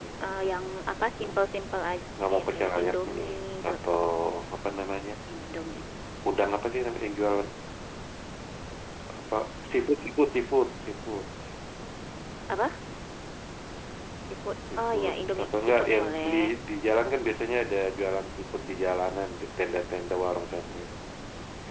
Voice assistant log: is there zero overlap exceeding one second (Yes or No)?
No